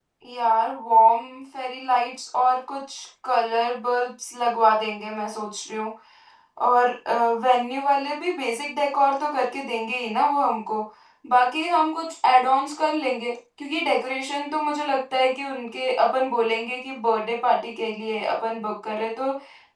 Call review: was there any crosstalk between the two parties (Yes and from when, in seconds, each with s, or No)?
No